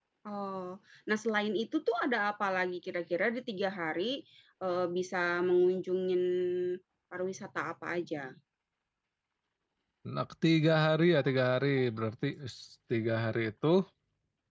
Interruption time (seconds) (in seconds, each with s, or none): none